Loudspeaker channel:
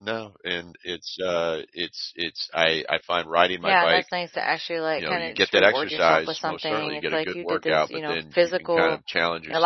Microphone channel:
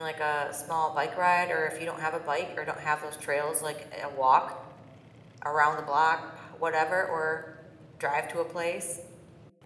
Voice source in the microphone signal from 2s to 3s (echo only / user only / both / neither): user only